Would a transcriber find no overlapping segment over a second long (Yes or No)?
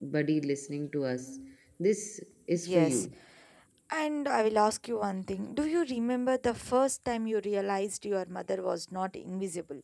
Yes